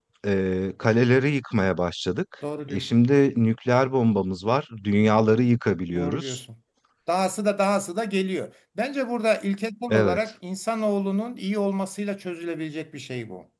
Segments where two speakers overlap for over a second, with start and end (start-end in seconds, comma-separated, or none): none